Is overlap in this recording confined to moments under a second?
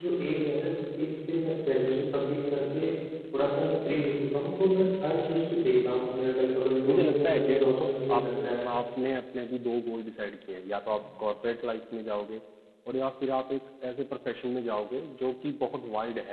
No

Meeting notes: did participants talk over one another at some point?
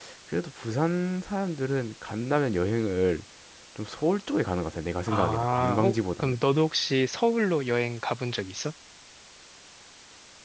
Yes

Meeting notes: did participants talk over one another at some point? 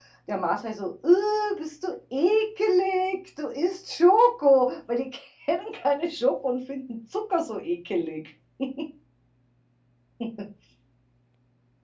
No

